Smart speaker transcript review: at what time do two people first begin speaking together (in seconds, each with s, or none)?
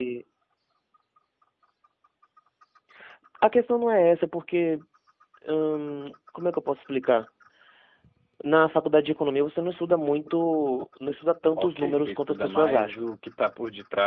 11.6 s